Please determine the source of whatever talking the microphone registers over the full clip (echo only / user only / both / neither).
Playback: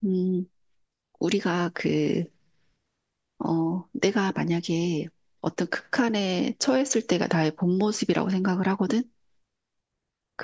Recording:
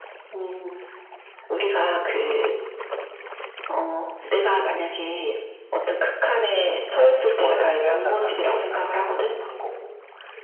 both